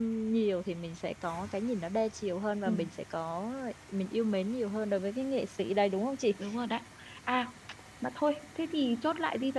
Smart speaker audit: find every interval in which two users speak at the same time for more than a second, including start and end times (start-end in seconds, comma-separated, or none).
none